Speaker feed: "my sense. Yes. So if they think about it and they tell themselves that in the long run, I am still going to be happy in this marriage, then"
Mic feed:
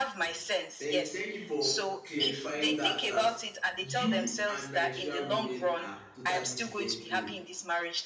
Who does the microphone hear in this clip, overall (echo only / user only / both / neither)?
both